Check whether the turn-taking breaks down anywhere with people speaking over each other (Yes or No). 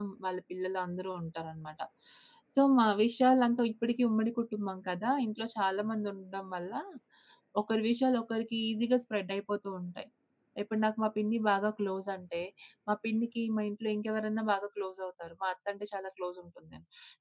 No